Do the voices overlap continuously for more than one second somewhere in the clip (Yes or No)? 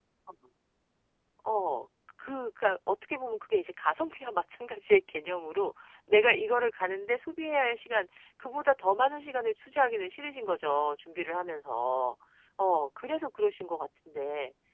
No